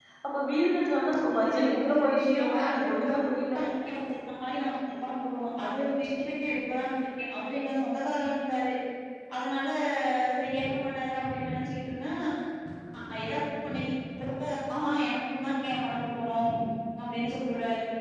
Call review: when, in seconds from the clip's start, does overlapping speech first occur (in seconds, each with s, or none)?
1.4 s